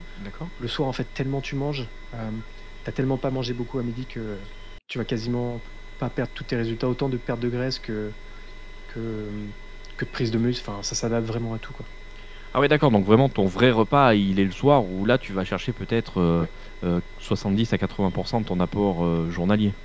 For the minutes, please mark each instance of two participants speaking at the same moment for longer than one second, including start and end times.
none

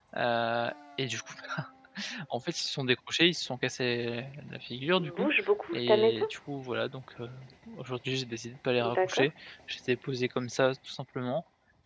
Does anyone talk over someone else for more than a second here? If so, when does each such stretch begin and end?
none

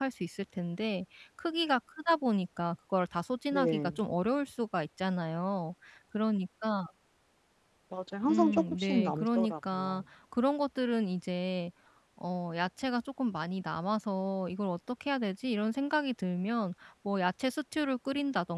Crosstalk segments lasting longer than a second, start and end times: 8.3-10.0

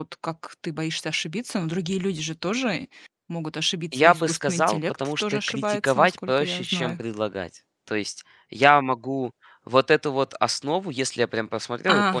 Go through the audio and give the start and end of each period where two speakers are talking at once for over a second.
3.9-7.0

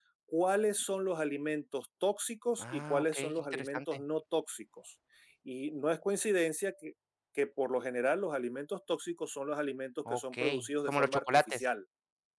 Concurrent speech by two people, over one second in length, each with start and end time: 2.6-4.0, 10.1-11.7

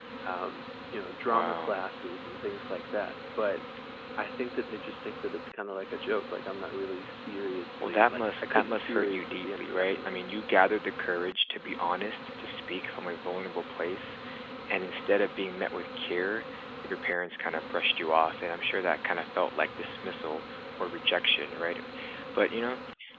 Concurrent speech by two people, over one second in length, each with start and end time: 7.8-10.1

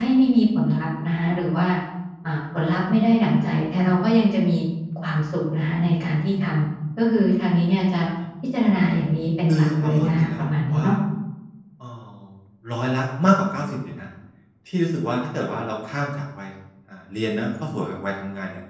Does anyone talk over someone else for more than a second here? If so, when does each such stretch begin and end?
9.5-10.9

